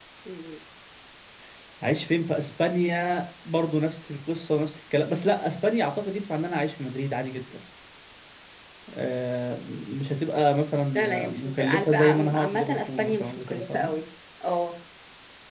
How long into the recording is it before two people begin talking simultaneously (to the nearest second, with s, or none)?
11 s